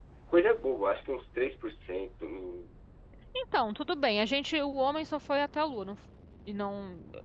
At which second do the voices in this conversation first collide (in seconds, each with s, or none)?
none